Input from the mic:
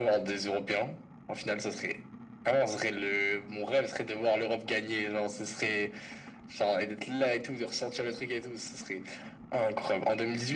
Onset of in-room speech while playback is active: none

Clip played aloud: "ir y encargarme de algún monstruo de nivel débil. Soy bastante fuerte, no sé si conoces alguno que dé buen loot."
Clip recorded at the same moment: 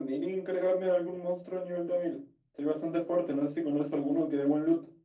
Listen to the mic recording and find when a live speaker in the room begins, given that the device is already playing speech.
none

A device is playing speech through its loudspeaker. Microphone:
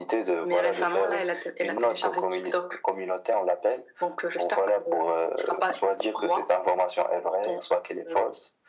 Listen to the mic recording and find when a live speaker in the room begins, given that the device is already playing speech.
none

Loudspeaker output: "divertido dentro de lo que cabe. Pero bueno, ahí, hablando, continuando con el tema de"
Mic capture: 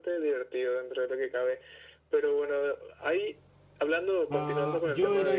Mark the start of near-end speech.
4.3 s

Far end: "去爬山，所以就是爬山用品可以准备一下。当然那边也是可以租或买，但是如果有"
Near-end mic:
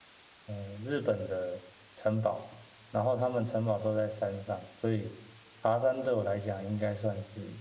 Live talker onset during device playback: 0.5 s

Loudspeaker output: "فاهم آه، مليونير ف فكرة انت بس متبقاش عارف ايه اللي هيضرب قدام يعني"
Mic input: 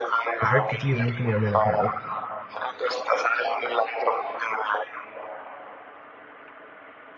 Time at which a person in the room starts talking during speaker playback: 0.4 s

